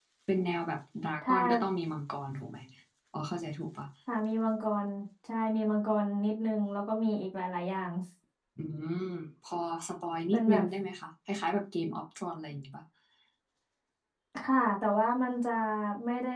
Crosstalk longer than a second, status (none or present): none